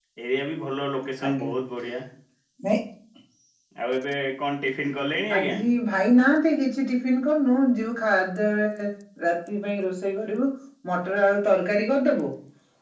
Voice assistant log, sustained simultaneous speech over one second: none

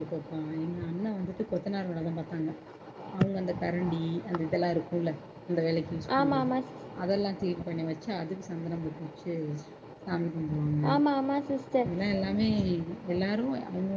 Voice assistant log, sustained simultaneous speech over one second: none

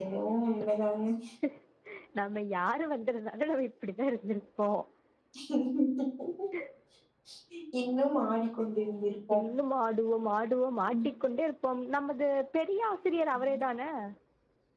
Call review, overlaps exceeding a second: none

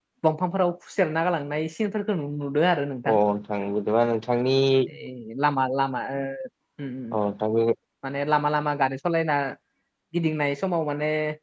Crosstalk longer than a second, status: none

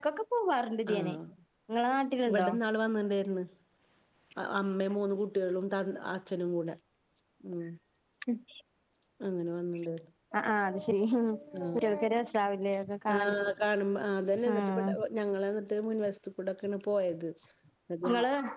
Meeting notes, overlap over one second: none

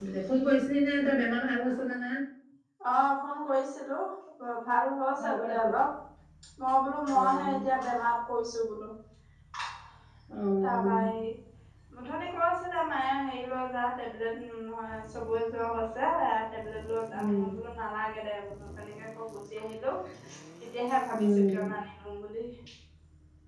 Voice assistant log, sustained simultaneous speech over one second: none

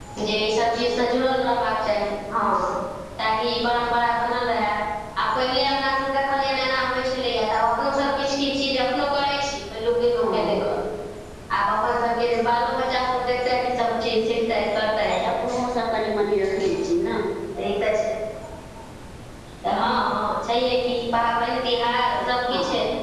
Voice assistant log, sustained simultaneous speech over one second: none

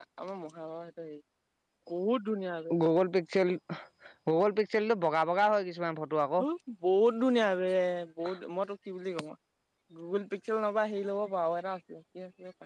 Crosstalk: none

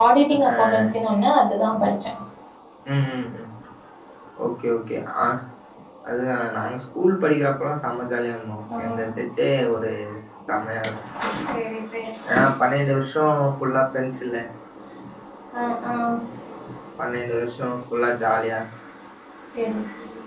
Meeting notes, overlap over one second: none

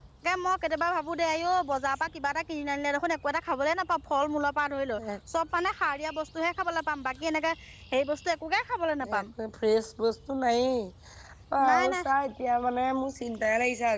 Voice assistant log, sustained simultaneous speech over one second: none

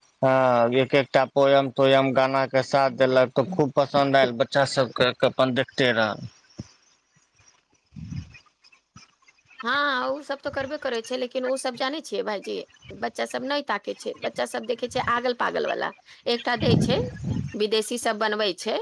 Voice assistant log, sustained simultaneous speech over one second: none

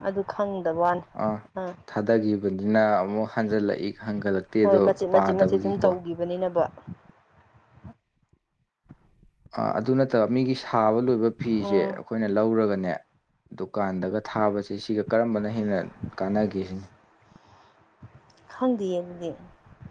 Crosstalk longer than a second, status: present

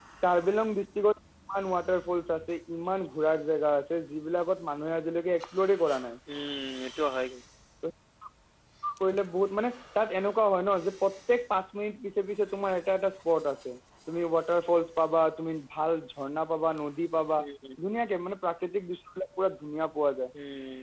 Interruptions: none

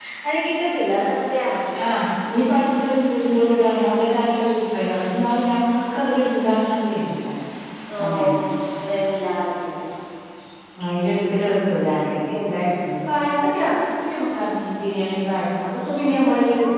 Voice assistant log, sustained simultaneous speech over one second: none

